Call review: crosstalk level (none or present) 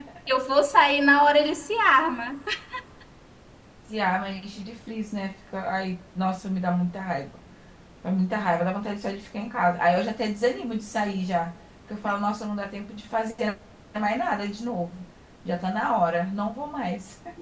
none